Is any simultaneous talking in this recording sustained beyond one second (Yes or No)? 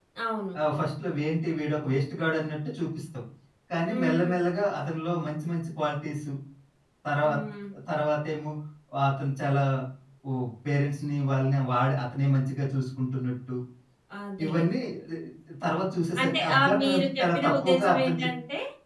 Yes